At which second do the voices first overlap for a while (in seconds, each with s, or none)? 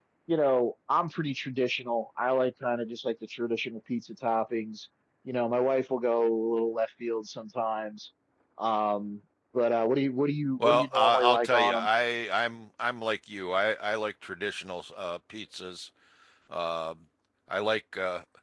10.6 s